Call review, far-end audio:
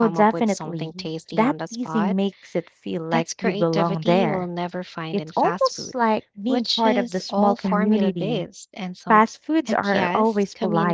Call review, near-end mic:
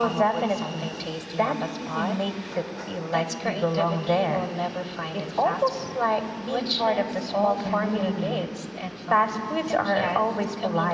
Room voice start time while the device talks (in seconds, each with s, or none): none